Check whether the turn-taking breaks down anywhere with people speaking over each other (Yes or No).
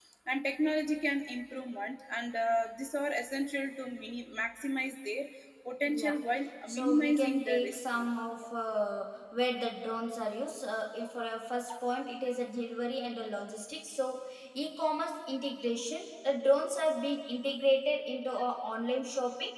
Yes